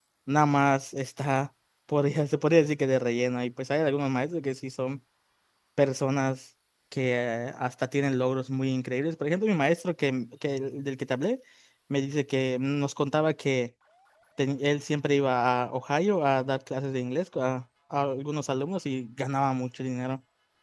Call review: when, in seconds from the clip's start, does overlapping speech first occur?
none

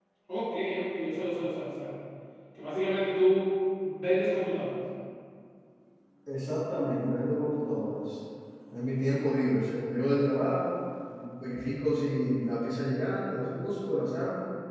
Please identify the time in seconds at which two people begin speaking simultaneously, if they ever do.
none

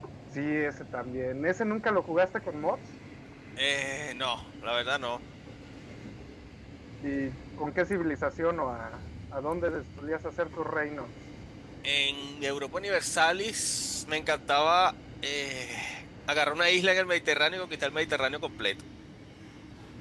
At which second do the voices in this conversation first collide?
none

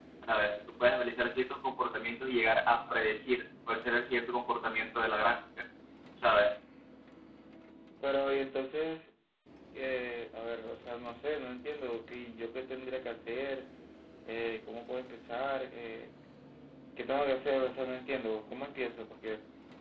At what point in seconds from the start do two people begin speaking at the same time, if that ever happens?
none

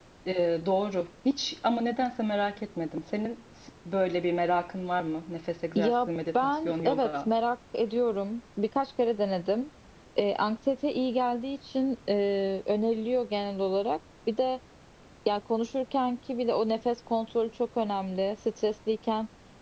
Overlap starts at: 6 s

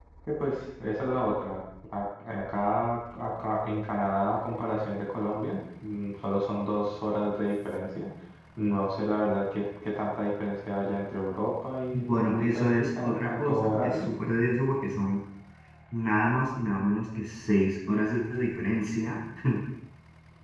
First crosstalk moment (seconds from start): 12 s

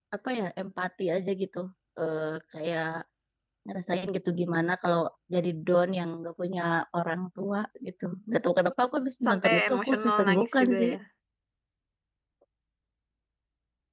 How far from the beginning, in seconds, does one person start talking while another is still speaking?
9 s

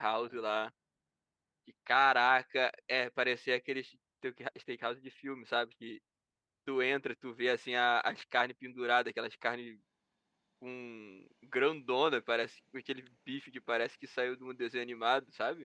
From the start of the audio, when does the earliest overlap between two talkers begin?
none

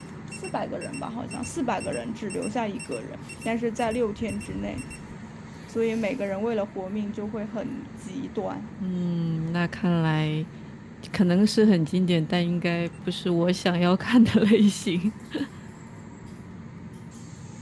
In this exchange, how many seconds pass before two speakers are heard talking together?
none

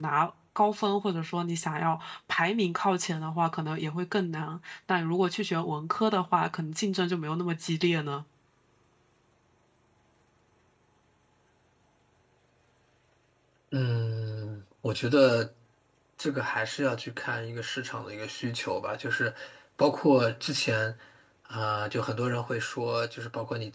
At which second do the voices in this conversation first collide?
none

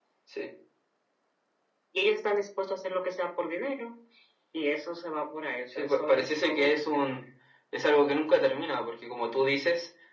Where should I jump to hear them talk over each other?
6 s

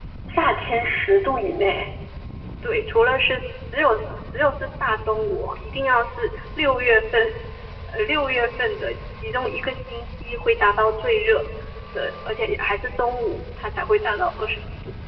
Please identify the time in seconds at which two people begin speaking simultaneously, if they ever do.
none

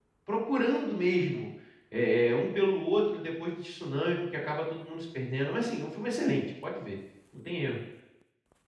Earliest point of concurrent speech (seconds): none

